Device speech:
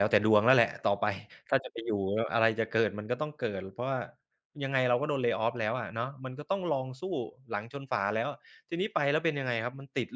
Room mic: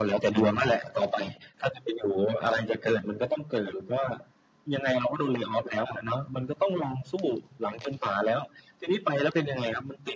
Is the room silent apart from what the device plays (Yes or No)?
No